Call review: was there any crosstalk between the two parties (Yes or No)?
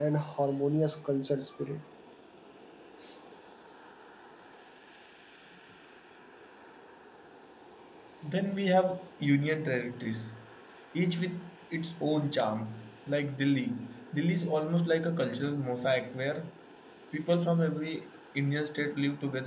No